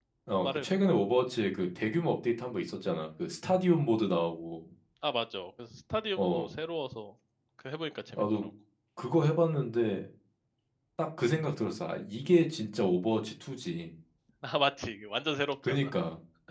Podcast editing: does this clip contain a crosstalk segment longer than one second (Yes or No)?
No